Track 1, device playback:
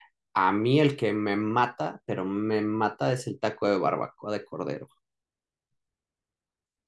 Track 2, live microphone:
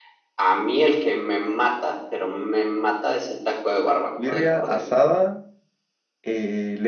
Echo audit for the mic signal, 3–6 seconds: both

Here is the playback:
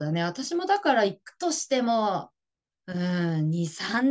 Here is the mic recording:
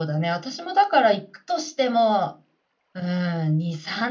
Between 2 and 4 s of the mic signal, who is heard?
echo only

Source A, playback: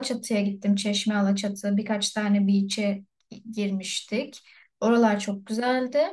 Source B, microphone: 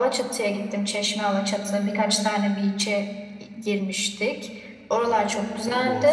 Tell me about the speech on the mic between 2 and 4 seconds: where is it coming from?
echo only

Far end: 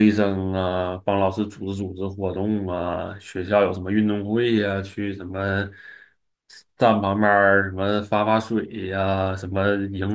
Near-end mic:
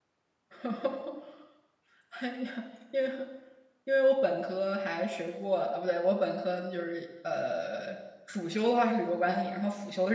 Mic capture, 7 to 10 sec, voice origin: user only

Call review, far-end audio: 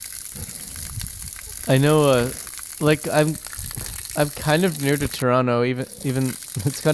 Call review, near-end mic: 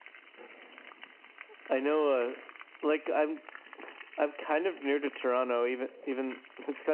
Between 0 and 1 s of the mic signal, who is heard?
neither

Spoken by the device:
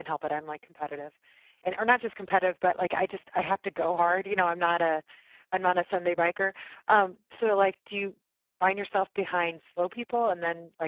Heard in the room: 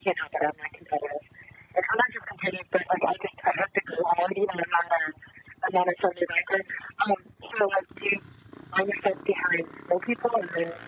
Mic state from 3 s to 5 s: echo only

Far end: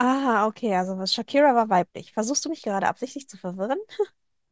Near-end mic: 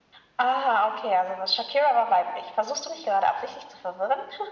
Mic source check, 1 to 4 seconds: echo only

